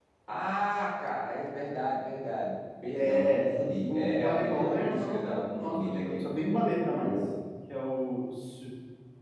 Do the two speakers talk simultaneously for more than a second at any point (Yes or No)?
Yes